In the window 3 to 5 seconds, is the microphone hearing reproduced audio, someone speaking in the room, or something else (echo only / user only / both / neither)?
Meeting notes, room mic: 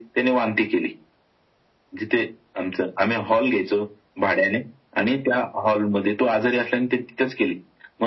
echo only